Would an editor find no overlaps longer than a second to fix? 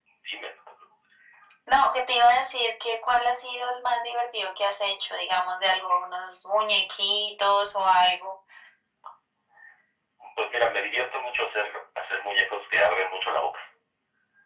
Yes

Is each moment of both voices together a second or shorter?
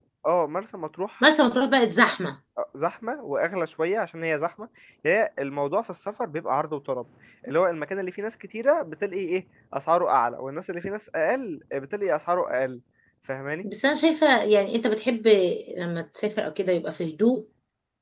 Yes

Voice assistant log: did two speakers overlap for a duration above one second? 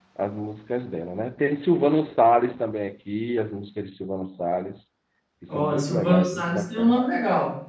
Yes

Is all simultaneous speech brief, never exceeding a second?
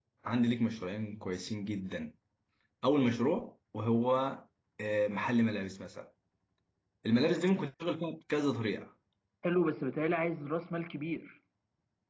Yes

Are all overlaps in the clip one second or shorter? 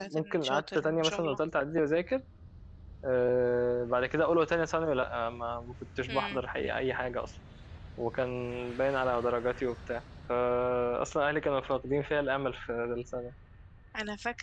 No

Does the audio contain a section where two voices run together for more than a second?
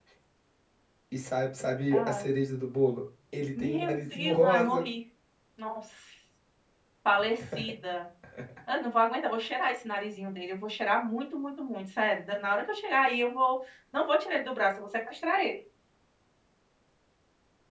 Yes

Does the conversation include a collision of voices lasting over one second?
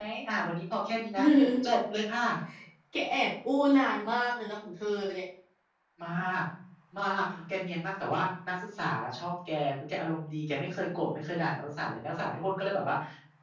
No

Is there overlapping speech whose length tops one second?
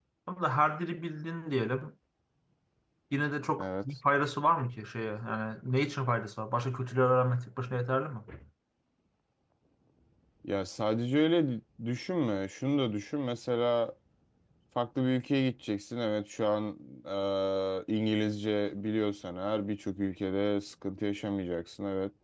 No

